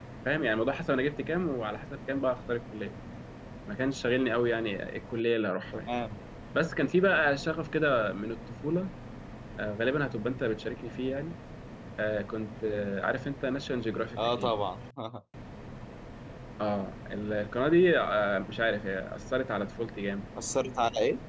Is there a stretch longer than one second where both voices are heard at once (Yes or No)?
No